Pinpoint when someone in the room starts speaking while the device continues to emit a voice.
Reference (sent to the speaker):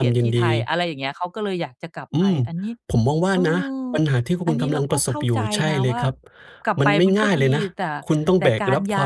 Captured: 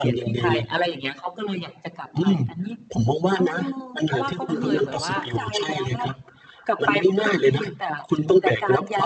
4.1 s

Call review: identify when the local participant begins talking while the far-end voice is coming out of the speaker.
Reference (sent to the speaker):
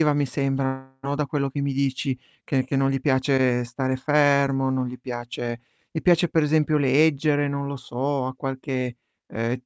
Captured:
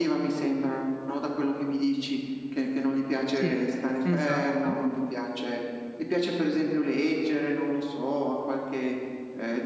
3.3 s

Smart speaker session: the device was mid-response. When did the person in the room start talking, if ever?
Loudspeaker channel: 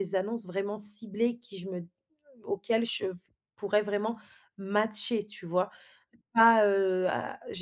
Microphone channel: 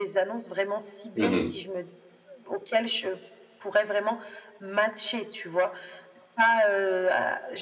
1.1 s

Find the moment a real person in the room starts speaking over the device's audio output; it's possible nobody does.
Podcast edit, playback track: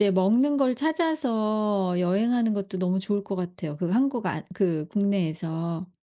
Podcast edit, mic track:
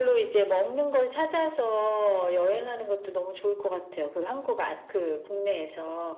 none

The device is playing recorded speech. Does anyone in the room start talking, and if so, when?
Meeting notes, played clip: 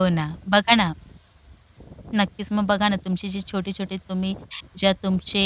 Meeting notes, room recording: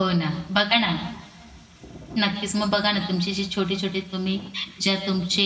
none

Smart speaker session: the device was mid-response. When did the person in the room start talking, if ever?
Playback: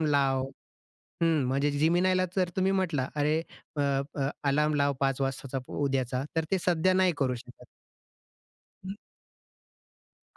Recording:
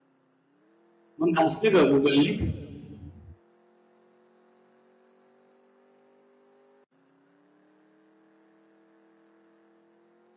1.2 s

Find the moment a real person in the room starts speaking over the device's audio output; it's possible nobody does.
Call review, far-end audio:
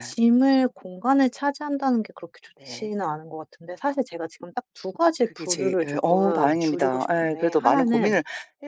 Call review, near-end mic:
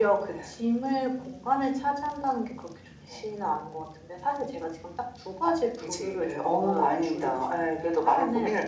none

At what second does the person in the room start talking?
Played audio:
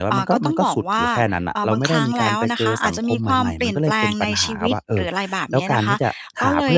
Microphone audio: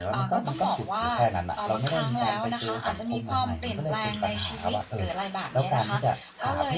none

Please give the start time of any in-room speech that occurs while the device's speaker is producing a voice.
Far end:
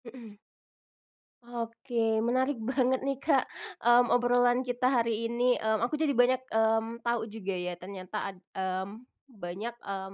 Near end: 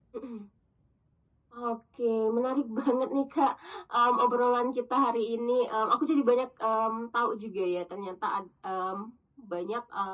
none

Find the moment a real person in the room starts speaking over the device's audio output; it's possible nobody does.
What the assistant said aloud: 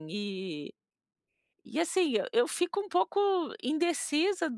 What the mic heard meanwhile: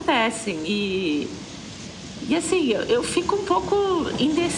none

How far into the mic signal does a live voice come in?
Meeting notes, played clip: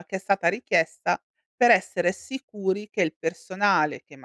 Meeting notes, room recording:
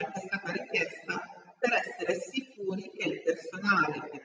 none

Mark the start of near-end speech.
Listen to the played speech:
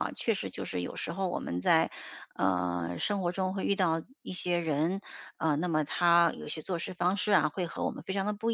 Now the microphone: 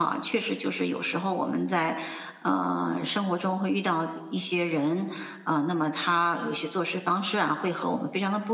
none

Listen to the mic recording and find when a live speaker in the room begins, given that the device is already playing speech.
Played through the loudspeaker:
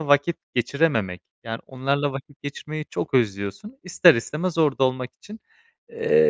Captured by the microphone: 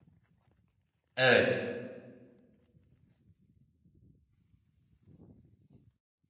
1.2 s

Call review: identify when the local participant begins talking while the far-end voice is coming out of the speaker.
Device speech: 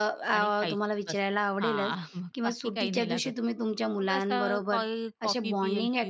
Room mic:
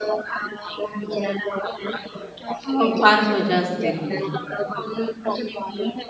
2.7 s

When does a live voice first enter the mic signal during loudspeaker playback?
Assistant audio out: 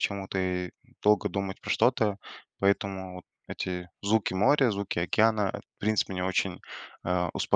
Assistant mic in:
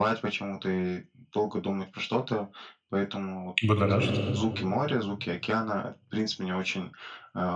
3.6 s

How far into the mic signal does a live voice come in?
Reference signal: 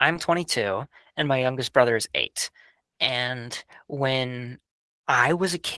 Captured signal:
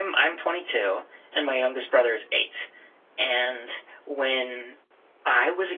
none

